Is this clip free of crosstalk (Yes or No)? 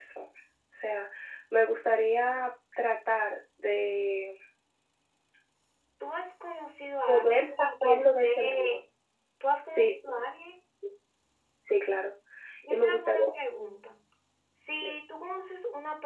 No